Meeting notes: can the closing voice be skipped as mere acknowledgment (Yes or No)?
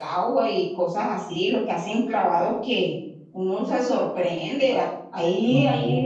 Yes